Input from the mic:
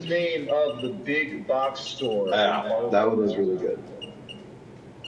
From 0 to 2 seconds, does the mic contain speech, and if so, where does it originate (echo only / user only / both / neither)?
echo only